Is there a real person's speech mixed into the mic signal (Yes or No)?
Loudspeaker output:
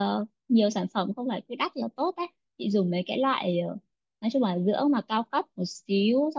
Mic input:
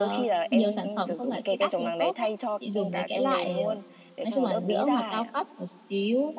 Yes